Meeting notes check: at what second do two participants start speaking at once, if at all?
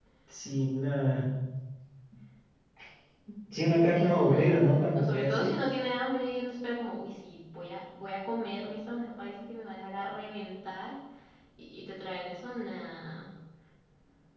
3.9 s

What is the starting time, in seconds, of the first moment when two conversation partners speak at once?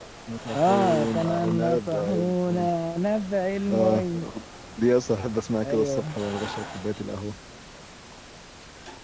0.5 s

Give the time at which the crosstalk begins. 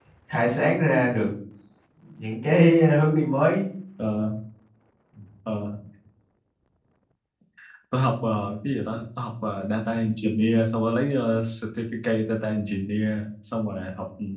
none

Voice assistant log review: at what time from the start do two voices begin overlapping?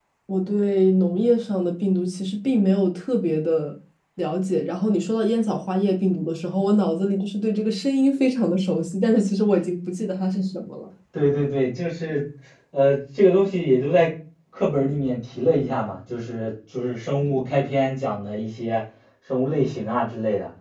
none

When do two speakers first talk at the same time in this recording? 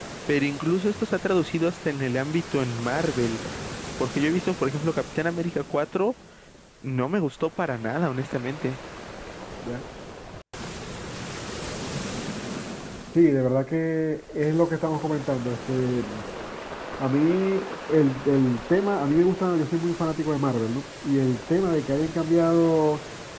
none

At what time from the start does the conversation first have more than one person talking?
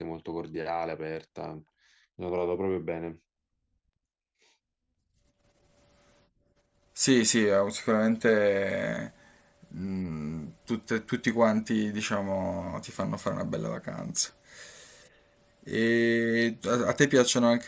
none

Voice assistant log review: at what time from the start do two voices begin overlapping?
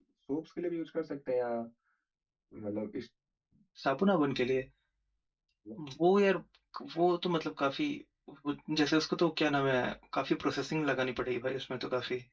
none

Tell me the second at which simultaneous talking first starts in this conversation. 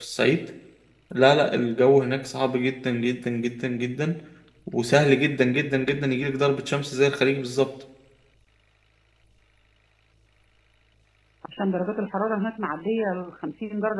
none

